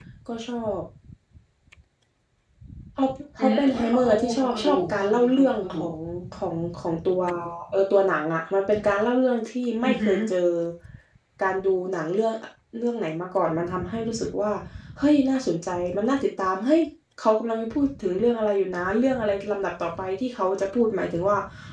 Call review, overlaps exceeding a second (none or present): present